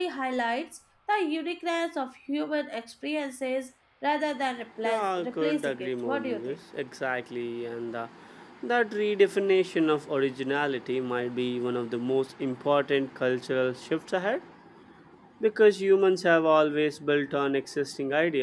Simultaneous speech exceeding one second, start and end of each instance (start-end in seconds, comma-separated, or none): 4.8-6.6